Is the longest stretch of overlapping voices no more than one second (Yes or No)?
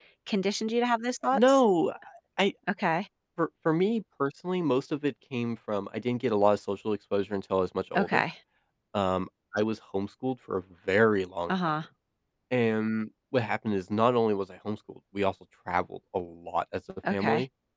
Yes